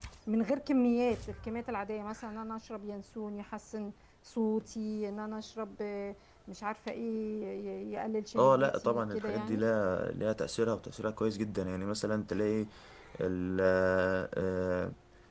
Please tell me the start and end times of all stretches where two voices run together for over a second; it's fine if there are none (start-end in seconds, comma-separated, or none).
8.4-9.7